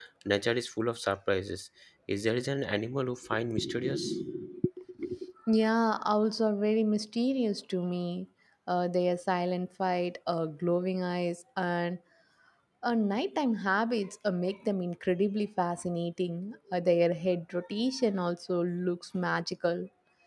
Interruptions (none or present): none